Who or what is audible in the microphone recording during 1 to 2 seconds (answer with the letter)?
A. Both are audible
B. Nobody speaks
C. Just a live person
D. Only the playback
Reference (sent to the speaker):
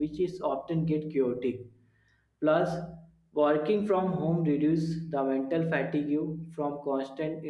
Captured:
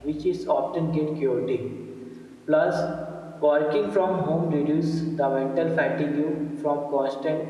D